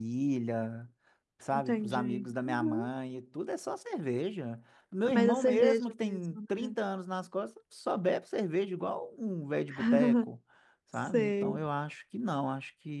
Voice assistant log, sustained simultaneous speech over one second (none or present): present